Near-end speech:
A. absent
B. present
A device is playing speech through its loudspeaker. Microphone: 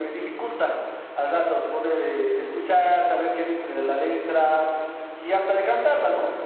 A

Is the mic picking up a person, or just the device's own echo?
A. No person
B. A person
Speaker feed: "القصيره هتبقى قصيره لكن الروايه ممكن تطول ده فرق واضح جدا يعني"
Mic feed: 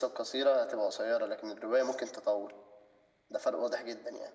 A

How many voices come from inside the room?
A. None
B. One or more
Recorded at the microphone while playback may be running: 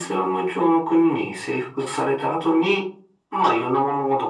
A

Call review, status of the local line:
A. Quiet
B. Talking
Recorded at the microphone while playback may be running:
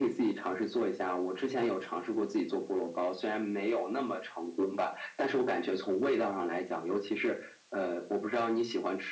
A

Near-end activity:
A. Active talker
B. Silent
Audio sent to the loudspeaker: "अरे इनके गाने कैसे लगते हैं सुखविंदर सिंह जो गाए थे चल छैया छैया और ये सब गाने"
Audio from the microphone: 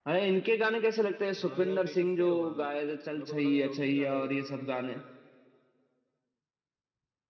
A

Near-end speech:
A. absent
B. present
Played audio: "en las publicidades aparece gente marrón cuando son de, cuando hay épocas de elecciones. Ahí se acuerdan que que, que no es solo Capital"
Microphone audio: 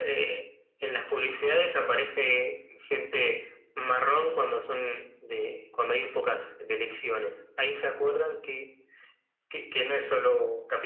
A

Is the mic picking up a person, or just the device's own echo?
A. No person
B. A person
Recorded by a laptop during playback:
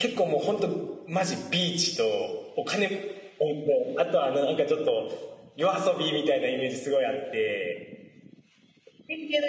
B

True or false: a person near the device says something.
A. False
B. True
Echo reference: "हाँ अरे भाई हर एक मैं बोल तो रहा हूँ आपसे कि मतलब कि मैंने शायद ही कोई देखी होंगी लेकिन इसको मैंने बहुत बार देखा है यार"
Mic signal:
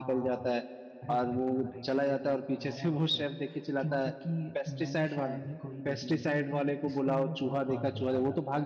B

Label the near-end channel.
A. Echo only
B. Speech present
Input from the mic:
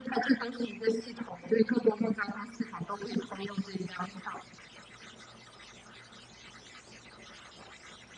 A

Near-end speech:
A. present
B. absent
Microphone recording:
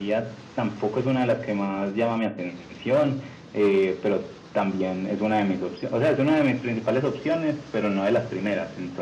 B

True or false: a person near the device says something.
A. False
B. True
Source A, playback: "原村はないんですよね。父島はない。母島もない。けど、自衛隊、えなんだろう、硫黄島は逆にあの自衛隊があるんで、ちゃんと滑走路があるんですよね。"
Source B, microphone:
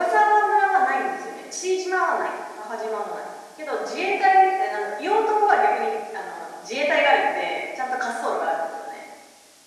A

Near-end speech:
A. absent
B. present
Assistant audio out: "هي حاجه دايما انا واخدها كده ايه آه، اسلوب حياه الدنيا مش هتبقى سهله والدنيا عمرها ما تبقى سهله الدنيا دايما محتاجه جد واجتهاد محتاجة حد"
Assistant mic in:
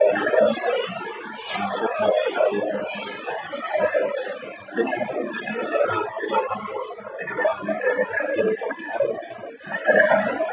A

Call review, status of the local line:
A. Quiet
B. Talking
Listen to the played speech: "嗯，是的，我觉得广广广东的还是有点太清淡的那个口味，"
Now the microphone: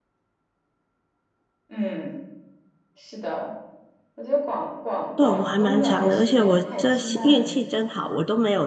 B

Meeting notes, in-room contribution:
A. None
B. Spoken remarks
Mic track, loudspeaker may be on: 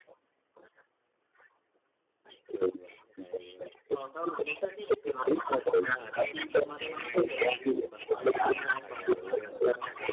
A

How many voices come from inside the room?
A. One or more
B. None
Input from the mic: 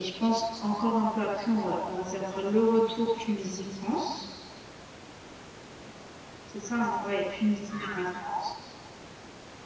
B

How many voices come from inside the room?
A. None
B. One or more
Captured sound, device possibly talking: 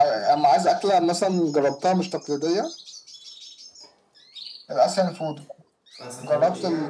B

